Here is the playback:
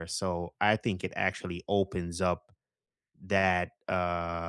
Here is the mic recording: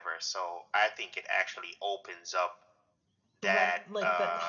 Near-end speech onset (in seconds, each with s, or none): 3.4 s